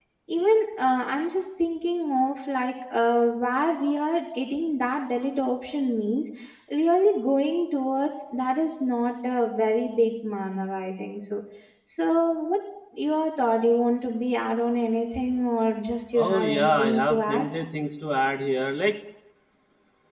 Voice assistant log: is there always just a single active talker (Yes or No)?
No